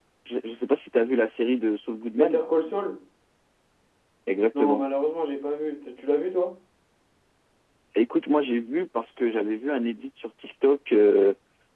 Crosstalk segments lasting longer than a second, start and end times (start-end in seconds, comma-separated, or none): none